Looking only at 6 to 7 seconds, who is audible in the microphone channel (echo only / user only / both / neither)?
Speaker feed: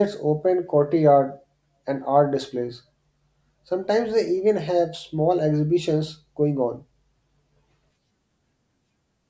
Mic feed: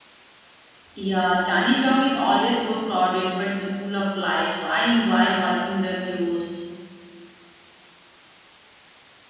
user only